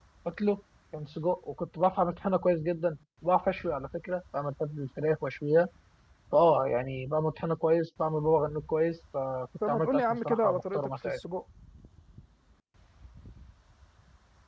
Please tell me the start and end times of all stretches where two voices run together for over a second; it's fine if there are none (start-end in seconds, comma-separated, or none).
9.7-11.2